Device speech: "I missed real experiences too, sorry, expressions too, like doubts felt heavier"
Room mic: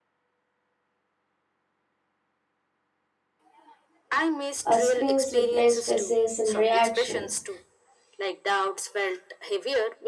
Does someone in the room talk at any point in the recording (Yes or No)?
Yes